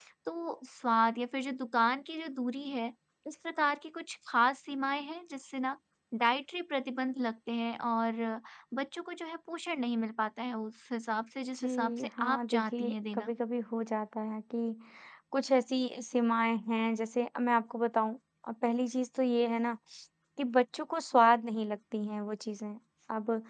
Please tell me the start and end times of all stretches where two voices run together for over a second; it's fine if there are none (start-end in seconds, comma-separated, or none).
11.6-13.3